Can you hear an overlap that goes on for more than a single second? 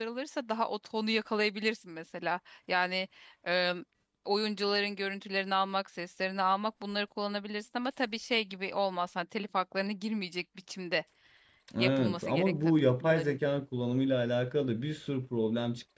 Yes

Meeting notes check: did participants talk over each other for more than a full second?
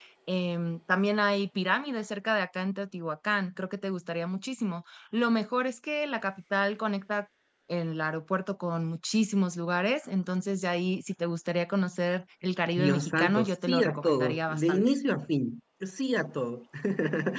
Yes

